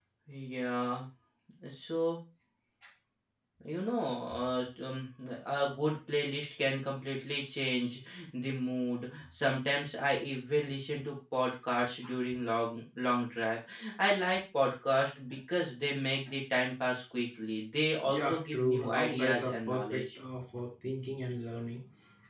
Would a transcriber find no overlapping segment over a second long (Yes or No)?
No